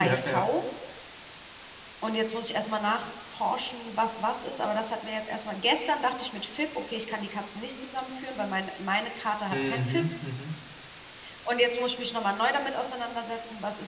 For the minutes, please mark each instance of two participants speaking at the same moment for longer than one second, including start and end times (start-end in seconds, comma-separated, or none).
none